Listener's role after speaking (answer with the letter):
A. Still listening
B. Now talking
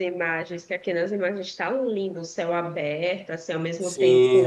B